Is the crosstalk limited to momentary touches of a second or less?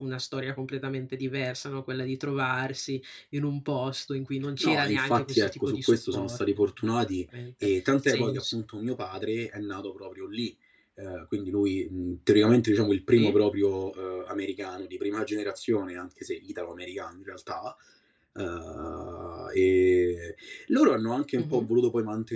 No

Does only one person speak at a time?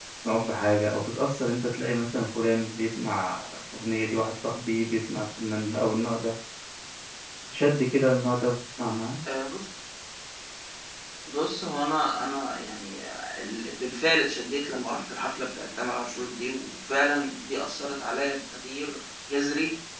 Yes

